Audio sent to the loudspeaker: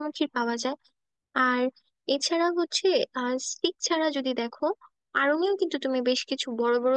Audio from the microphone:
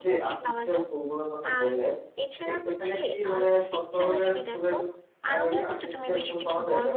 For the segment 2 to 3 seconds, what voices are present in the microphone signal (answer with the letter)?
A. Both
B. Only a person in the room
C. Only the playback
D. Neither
A